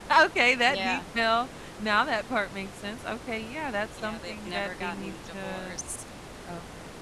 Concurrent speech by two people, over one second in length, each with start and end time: 4.0-5.8

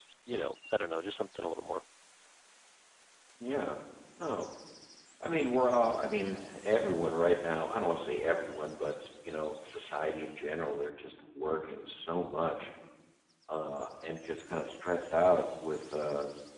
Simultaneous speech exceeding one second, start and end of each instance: none

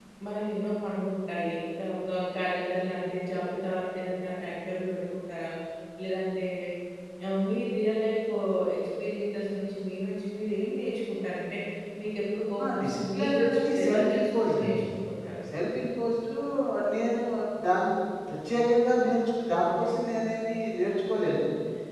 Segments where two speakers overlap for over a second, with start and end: 12.6-15.0

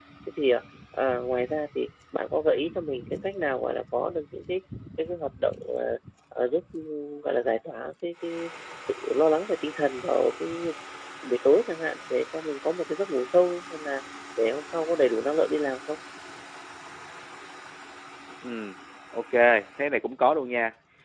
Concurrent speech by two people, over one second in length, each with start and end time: none

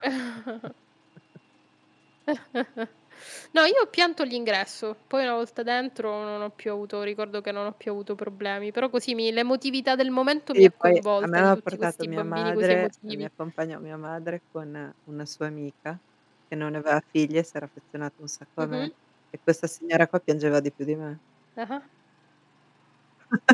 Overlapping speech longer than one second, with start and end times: 10.5-13.3

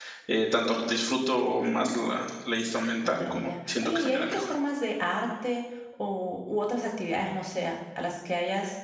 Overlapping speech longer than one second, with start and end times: 3.1-4.4

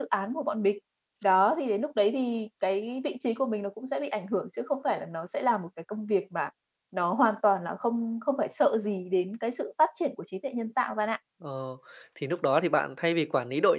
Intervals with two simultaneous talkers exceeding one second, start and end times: none

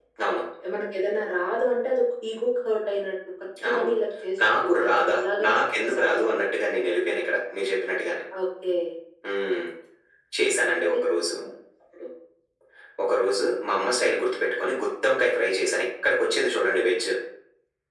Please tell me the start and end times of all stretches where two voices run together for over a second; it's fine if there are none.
4.4-6.4

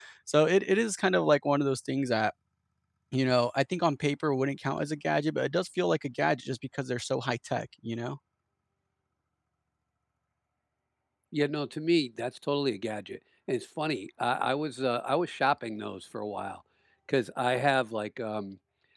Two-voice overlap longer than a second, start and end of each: none

